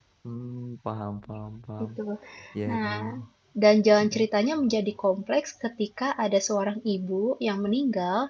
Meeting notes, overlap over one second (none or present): none